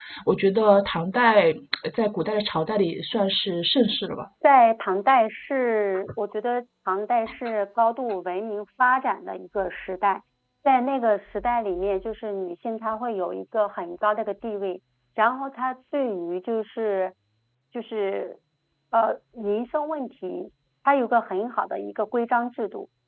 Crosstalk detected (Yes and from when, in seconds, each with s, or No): No